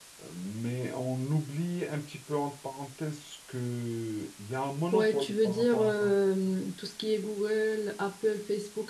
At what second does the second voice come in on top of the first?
5 s

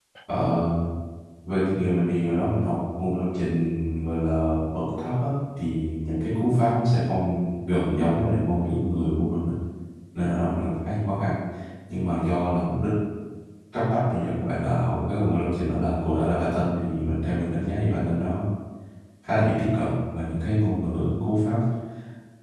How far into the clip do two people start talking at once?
none

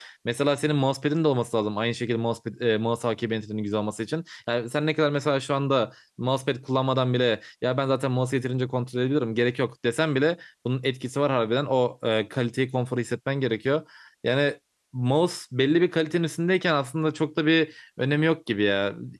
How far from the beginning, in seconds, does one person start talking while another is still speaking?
none

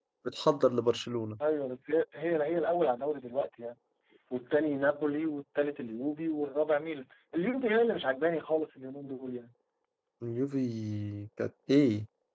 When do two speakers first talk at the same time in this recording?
none

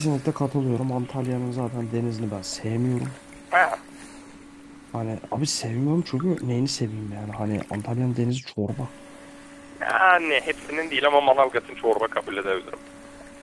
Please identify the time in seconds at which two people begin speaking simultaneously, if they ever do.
none

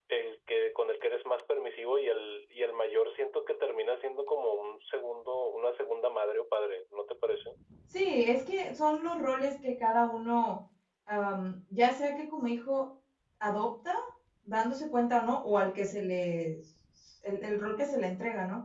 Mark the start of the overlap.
none

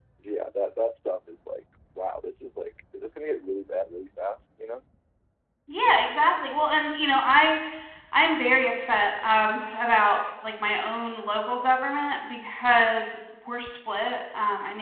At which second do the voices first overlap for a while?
none

